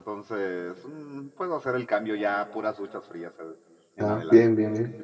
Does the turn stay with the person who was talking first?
No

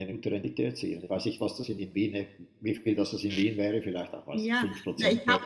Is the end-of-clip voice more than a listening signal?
Yes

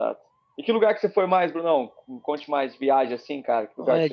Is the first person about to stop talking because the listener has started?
Yes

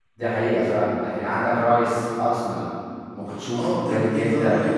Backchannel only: No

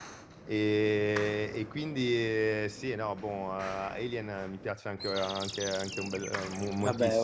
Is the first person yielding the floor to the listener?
Yes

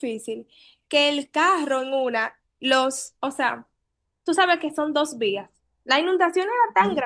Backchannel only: Yes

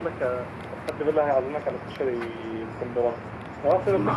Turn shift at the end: No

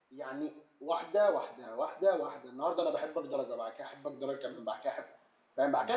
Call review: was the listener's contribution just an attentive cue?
Yes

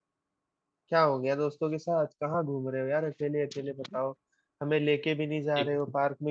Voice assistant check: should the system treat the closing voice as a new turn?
No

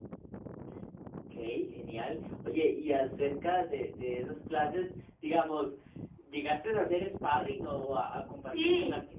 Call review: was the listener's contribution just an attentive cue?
No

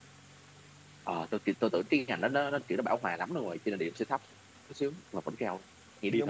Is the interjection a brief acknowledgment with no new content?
No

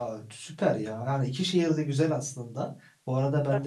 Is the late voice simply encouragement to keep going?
Yes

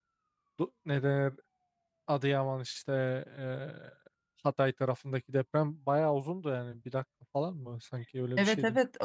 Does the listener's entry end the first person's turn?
Yes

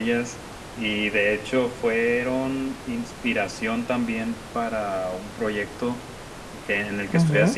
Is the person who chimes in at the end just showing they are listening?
Yes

